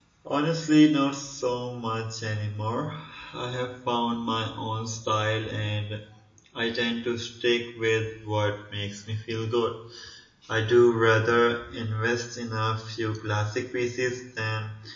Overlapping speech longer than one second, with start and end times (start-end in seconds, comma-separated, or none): none